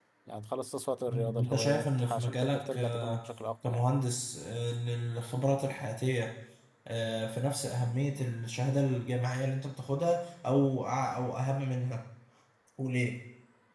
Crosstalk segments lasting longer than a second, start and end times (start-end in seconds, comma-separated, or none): 1.1-3.2